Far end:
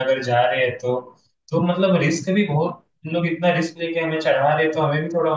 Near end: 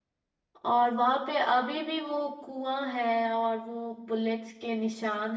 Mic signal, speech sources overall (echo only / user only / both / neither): user only